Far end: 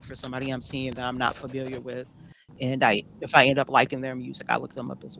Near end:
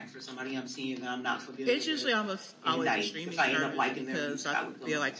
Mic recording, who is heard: both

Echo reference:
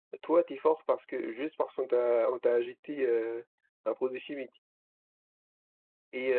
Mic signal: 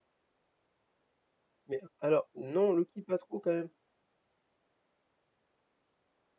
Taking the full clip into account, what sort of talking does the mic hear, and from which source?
user only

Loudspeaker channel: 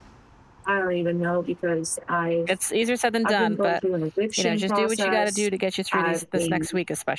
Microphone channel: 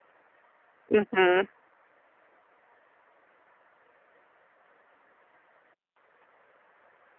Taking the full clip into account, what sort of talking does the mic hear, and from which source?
user only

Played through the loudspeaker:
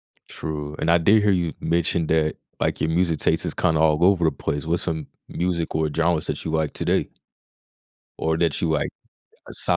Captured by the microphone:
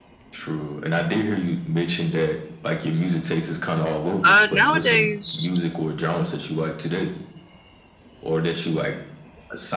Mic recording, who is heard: both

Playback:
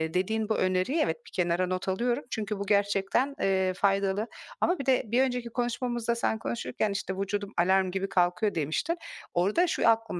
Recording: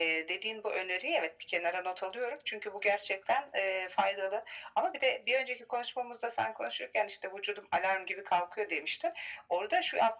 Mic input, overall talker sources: echo only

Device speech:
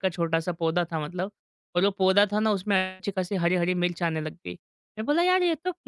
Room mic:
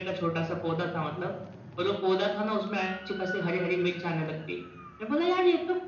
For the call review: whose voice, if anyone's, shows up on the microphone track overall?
echo only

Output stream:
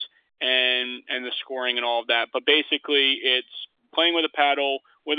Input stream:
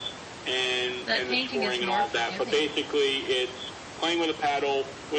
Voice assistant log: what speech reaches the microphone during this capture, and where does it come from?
both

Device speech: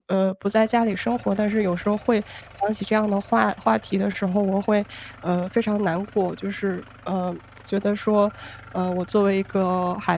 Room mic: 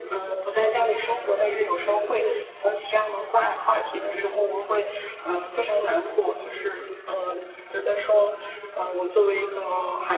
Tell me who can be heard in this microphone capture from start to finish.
both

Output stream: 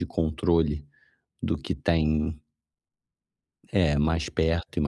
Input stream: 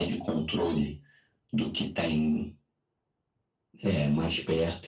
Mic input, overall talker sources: echo only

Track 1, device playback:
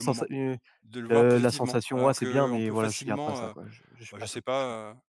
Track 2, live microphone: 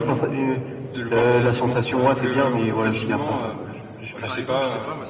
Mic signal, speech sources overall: both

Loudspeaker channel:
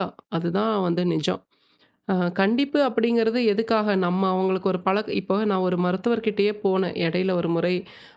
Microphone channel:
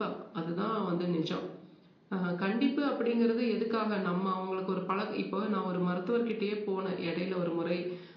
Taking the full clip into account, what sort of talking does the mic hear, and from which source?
echo only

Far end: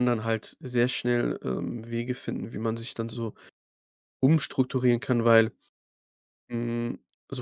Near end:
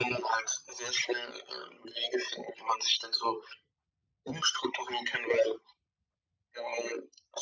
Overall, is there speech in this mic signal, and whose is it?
echo only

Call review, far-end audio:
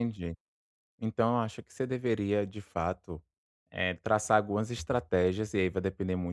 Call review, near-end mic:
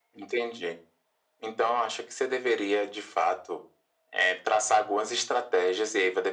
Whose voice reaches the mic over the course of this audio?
echo only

